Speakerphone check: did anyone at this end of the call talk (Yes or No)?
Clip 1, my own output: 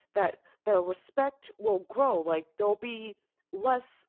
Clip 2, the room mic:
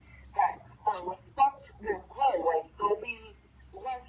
No